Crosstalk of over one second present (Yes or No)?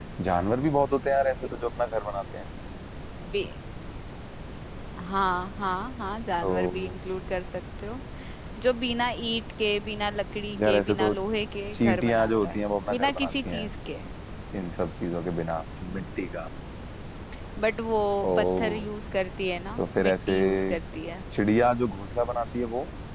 Yes